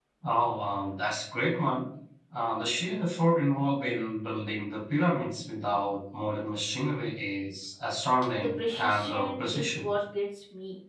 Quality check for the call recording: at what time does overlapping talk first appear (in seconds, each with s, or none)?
8.3 s